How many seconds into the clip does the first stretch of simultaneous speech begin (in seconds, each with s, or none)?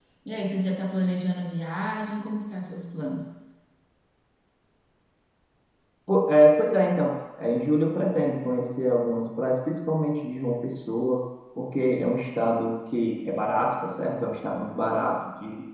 none